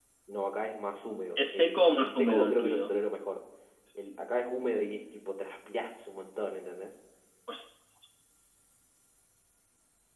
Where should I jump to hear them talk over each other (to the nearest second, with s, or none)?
1 s